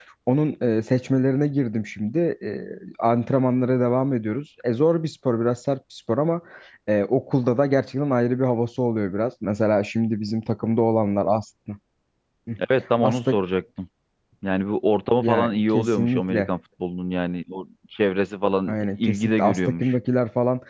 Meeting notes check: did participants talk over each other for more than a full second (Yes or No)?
Yes